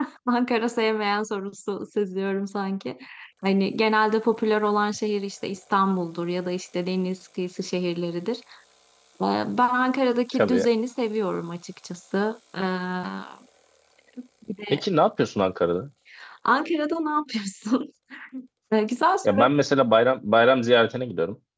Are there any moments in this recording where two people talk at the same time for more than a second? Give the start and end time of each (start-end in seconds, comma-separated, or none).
none